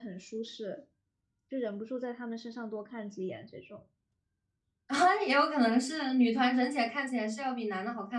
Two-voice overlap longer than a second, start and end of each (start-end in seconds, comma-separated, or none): none